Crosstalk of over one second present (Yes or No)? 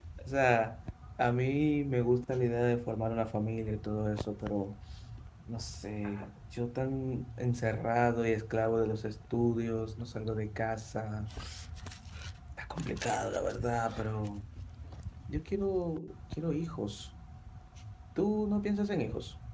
No